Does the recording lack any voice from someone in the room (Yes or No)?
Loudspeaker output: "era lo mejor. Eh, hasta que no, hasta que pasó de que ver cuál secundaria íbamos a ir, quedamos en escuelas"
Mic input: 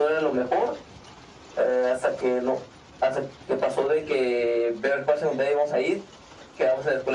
Yes